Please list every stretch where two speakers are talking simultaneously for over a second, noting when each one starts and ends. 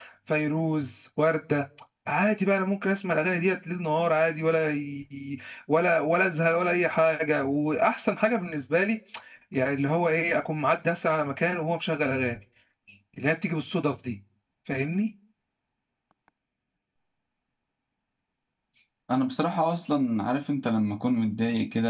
none

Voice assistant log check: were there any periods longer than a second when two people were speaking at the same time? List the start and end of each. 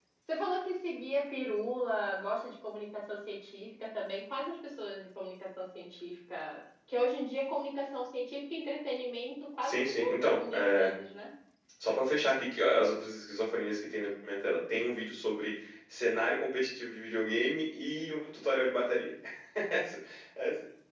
9.6-10.9

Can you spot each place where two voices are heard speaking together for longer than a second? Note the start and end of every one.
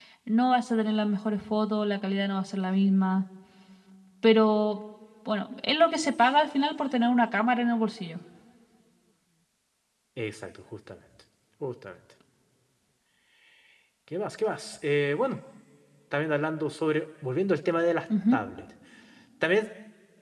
none

